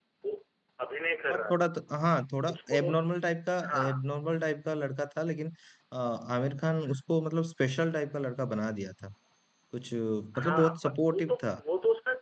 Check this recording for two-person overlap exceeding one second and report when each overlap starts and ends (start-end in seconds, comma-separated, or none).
10.4-11.6